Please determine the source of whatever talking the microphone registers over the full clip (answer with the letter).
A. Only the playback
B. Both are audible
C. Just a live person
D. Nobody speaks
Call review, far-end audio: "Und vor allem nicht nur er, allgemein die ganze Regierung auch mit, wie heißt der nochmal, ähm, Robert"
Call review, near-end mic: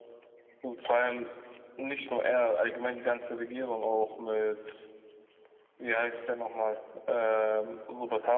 A